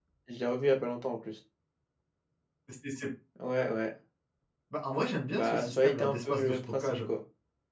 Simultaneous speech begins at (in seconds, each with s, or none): 5.3 s